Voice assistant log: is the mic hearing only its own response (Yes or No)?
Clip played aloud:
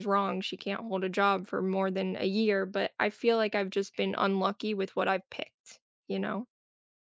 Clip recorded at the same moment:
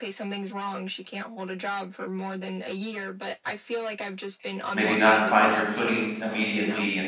No